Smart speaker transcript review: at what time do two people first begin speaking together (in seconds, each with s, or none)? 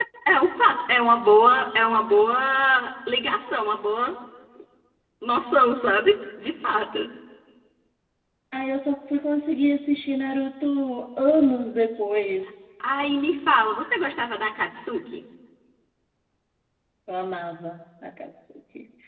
none